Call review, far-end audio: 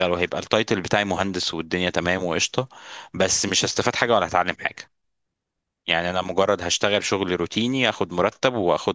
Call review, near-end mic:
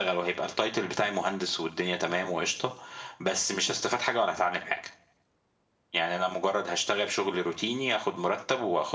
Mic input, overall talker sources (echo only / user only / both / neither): echo only